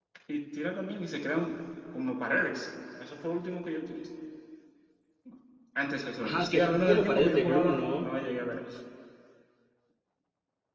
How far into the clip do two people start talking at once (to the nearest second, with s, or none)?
6 s